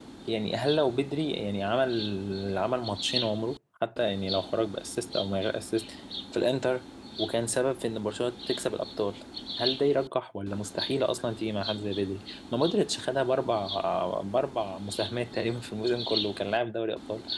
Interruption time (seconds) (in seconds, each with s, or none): none